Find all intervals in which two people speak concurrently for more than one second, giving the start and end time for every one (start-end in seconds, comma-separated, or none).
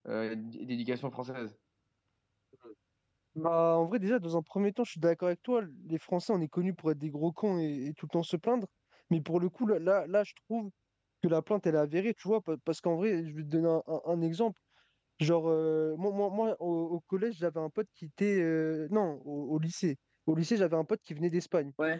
none